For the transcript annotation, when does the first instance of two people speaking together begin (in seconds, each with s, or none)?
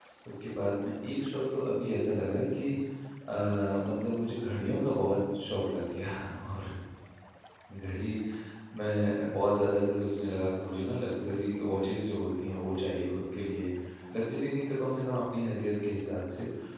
none